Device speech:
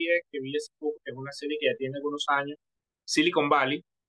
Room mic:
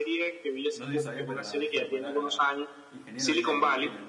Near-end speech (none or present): present